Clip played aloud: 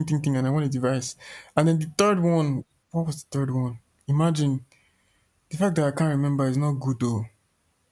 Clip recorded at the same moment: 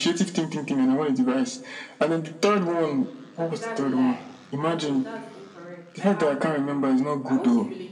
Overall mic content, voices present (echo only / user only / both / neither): both